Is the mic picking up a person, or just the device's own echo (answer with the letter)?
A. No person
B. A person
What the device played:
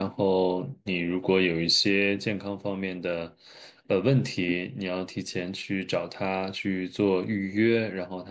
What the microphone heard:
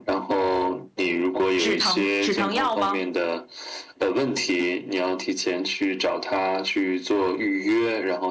B